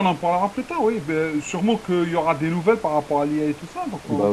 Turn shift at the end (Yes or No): Yes